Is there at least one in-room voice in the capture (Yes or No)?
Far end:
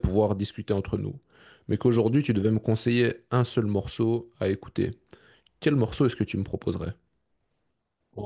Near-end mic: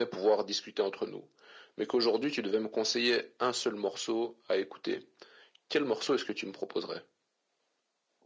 No